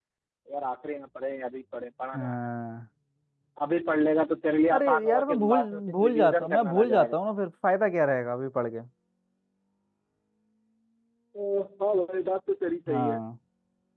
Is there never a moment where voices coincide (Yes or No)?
No